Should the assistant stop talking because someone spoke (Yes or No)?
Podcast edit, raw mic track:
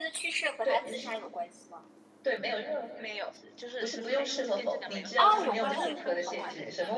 Yes